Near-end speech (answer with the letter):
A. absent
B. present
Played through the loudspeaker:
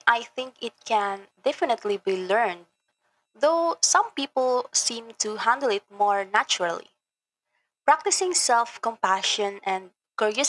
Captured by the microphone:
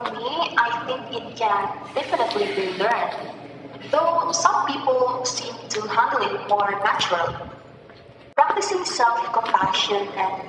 A